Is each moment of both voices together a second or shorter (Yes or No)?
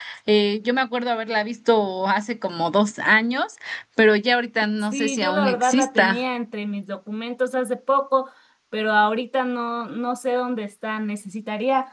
No